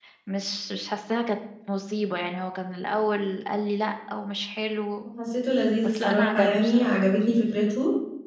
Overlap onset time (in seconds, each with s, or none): 5.8 s